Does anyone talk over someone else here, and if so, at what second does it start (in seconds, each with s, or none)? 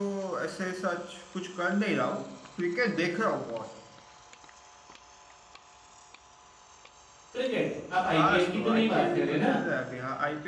8.1 s